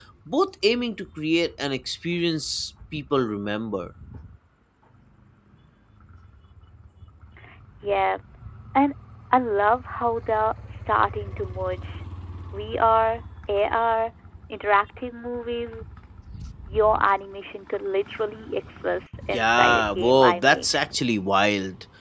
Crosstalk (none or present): present